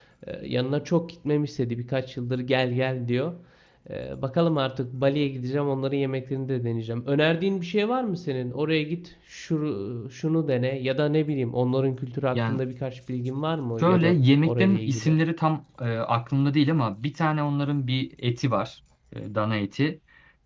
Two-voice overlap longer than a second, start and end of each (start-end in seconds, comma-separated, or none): 13.8-15.2